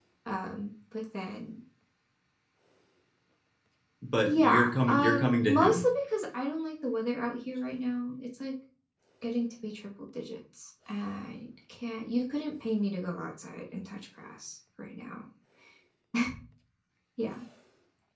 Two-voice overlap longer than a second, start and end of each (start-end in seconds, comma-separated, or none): 4.3-5.8